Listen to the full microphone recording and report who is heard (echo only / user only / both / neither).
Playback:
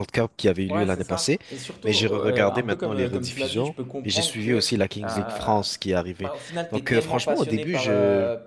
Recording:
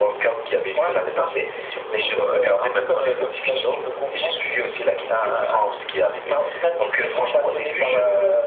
echo only